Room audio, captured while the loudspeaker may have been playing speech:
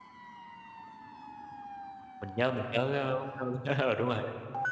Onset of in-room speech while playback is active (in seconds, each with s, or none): 2.2 s